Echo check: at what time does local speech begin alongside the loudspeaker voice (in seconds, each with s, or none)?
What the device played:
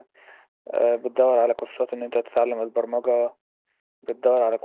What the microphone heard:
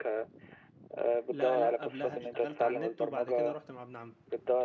1.3 s